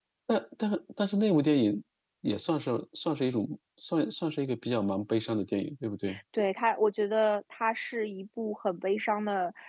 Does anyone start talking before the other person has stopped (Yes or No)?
No